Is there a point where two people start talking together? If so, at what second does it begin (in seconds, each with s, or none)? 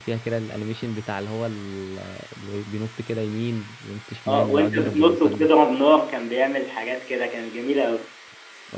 4.3 s